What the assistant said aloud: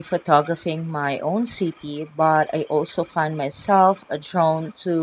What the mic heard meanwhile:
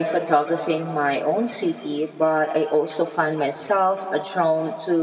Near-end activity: none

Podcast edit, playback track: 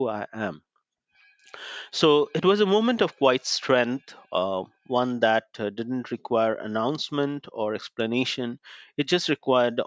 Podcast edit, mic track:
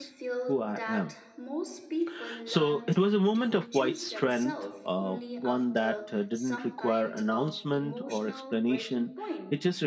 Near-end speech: present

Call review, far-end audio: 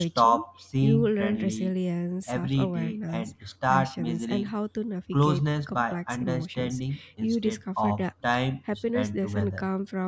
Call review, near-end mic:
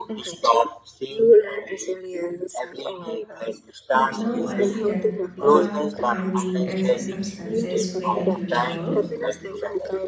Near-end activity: present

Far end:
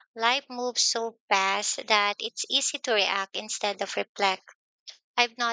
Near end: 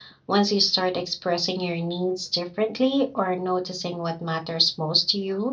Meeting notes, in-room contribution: present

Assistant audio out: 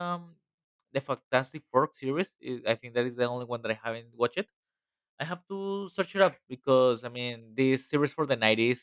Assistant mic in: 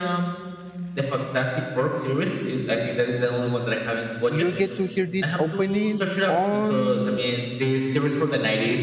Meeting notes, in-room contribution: present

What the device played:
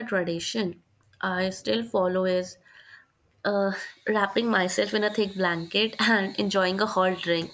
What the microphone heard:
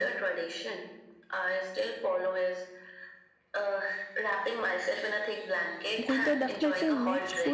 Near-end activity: present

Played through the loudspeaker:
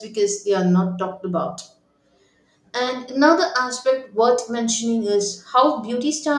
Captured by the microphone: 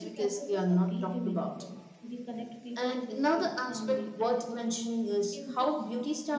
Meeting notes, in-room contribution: present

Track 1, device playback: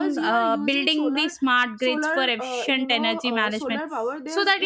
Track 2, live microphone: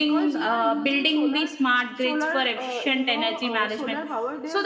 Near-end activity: none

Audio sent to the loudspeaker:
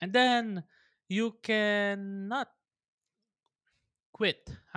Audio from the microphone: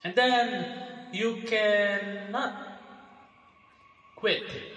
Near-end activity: none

